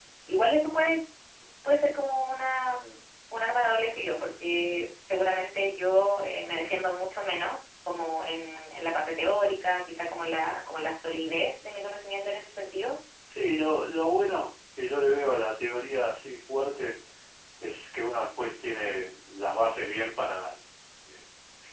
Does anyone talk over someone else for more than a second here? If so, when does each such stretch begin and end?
none

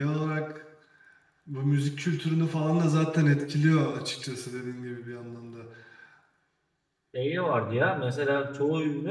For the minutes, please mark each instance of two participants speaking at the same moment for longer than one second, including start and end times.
none

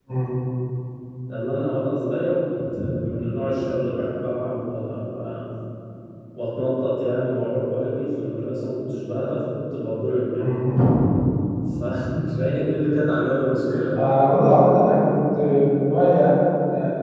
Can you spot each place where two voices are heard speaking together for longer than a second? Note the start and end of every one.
none

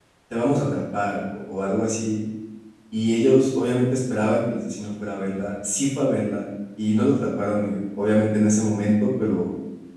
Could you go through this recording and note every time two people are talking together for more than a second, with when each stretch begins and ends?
none

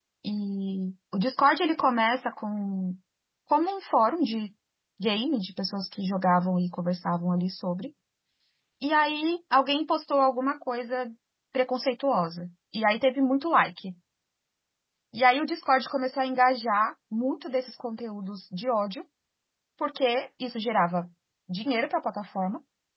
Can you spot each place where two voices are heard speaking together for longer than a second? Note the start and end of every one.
none

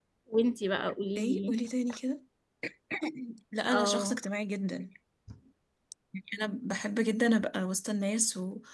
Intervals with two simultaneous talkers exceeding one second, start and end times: none

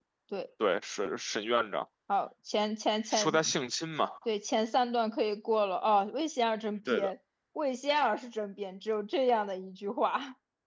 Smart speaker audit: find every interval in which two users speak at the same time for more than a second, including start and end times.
none

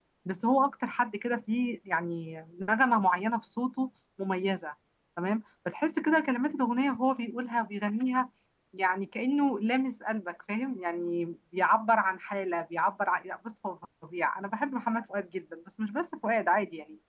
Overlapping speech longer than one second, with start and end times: none

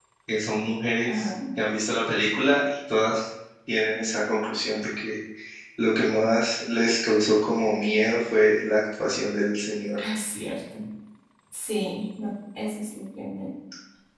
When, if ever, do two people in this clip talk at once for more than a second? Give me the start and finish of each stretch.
none

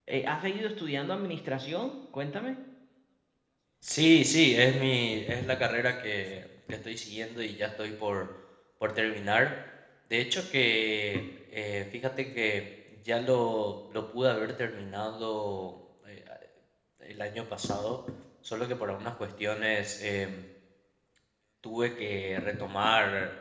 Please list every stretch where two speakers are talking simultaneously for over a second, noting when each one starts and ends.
none

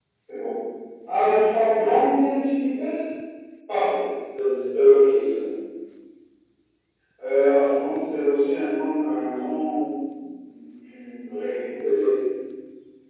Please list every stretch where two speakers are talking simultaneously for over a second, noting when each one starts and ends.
none

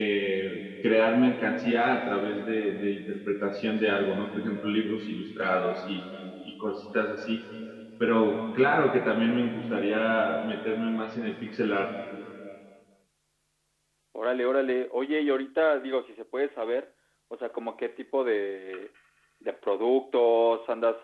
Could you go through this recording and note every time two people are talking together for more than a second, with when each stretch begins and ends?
none

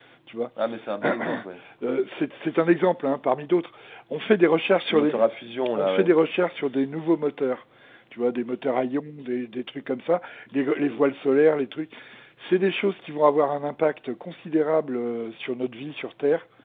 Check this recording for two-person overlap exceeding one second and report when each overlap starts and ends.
none

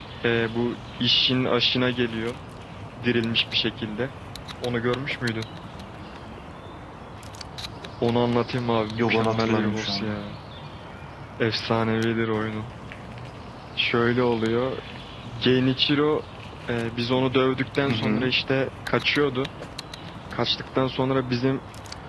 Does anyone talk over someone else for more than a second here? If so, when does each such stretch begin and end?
8.9-10.2

